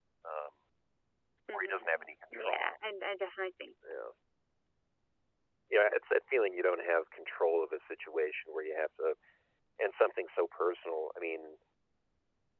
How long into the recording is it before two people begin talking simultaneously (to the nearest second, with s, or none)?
2 s